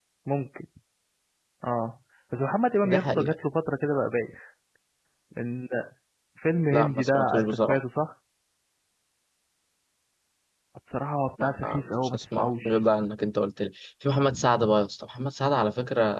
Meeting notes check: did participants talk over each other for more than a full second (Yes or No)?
Yes